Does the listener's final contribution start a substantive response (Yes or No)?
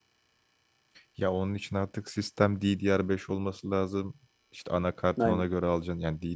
No